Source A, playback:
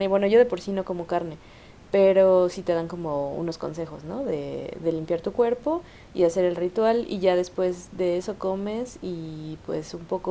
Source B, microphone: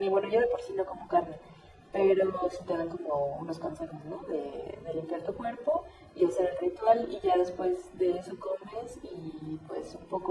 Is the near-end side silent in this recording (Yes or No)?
Yes